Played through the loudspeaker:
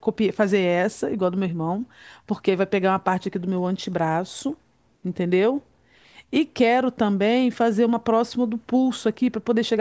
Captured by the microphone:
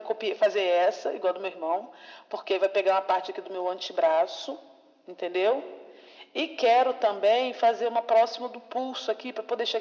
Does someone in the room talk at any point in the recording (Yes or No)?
No